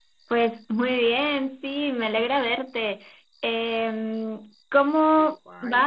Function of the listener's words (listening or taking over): listening